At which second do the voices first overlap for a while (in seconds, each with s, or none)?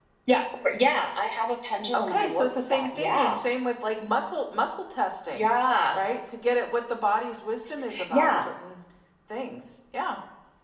1.9 s